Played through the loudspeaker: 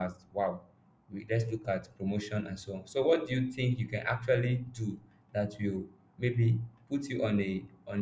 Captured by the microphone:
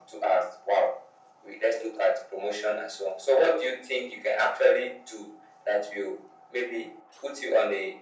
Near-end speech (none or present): none